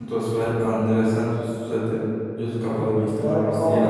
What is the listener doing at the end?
taking over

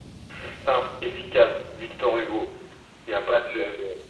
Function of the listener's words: taking over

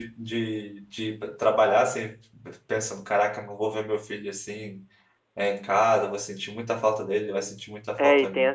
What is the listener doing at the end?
taking over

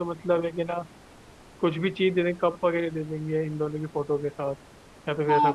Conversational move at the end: taking over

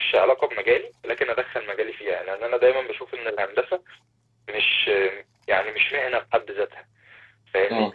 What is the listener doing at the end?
listening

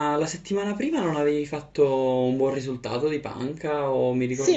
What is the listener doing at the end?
taking over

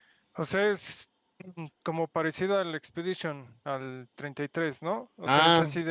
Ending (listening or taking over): listening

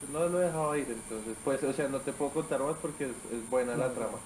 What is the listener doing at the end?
listening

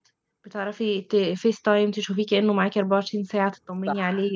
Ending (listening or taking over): taking over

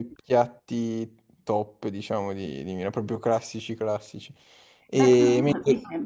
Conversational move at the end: taking over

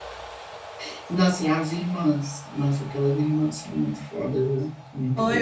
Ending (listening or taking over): taking over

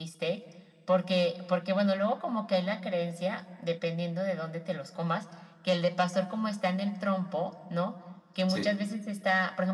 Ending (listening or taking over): listening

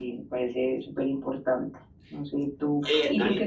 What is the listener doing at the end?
listening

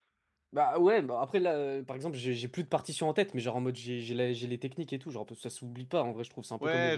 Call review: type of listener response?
taking over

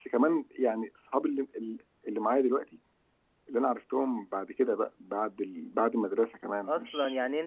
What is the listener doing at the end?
taking over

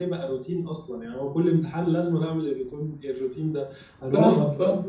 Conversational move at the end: listening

